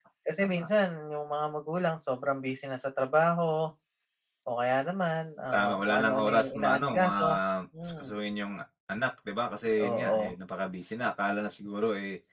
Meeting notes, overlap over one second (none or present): present